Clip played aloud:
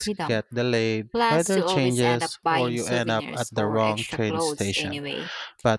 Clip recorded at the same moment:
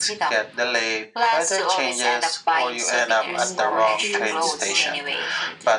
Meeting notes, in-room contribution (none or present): present